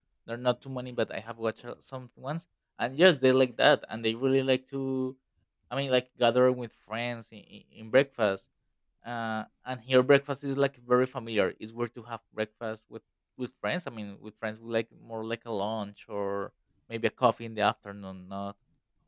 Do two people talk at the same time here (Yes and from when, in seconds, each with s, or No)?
No